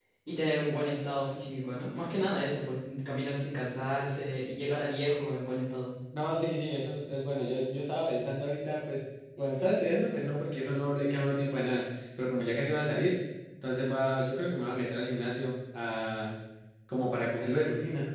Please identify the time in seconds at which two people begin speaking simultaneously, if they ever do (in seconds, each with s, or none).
none